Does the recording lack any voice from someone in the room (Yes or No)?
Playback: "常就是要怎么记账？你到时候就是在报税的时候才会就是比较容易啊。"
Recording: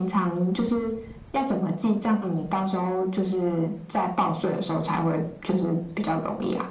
Yes